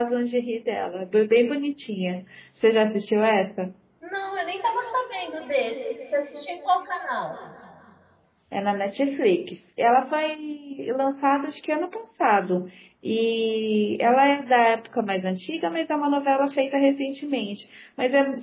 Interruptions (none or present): none